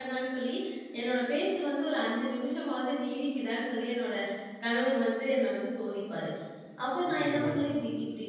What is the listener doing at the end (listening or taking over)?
listening